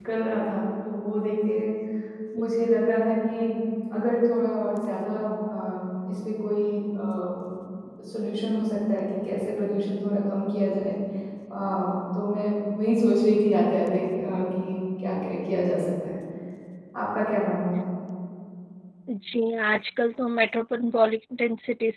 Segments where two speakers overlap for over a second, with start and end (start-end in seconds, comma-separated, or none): none